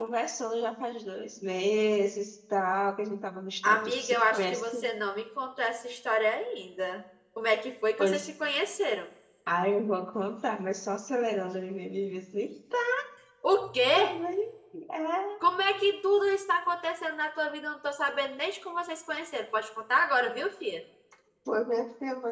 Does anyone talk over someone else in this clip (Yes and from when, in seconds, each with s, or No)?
Yes, from 3.7 s